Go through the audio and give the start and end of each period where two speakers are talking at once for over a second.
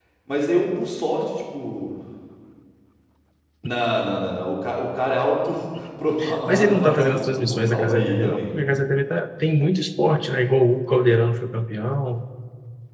6.5-8.4

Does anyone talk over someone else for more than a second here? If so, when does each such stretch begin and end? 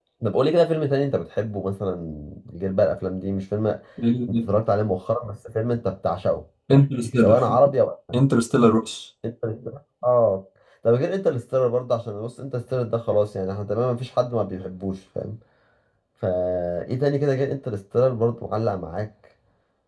none

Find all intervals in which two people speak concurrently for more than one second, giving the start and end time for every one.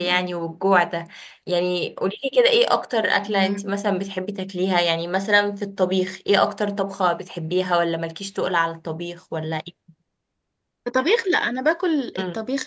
none

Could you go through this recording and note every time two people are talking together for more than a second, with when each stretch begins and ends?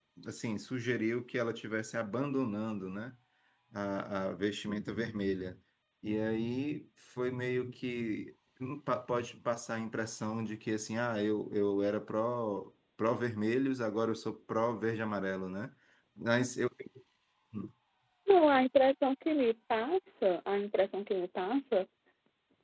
none

